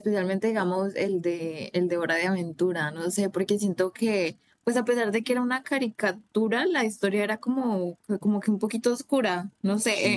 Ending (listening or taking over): listening